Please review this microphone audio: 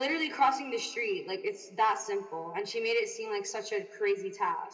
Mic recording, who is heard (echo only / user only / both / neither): echo only